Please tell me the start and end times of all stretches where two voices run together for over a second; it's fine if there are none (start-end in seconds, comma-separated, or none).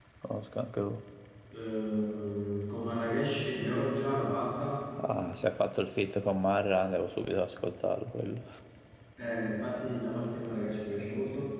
none